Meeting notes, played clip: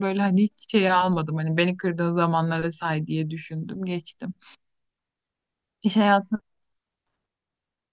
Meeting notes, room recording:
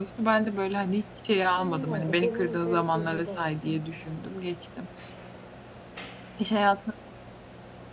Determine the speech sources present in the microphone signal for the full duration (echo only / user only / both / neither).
both